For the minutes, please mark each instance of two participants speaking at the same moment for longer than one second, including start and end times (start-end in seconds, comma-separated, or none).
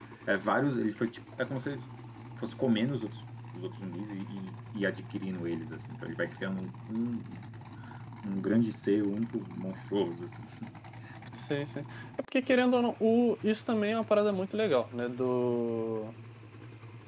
none